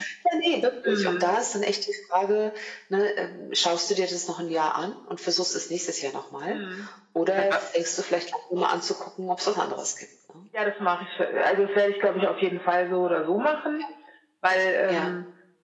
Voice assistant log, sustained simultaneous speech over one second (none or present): none